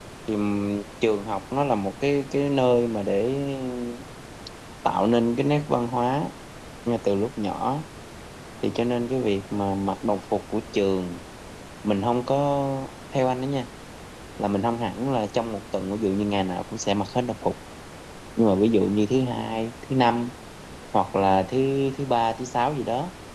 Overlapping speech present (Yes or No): No